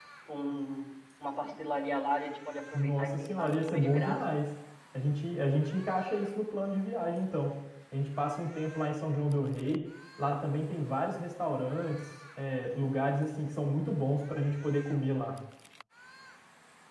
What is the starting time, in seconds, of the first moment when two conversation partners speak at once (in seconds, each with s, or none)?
2.7 s